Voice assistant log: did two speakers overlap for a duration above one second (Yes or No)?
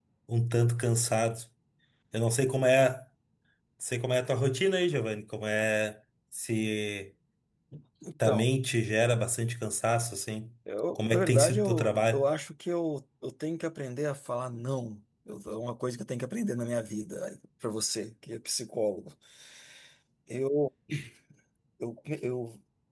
Yes